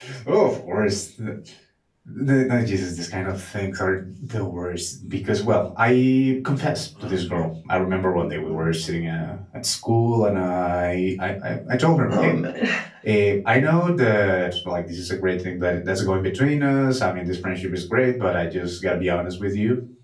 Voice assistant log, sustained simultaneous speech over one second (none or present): none